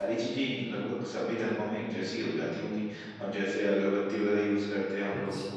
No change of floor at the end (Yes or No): No